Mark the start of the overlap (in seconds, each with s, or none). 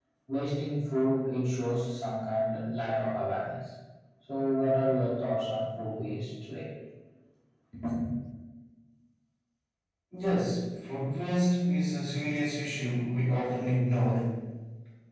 none